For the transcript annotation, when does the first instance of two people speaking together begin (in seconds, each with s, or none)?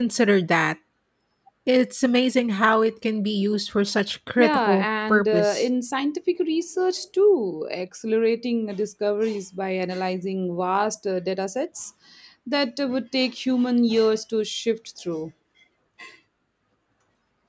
4.4 s